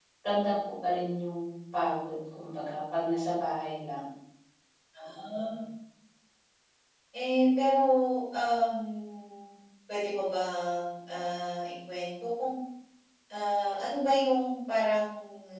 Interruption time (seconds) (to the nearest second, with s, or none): none